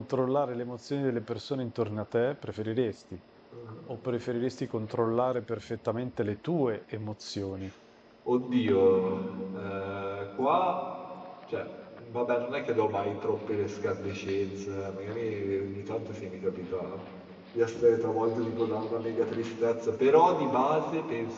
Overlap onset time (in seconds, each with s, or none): none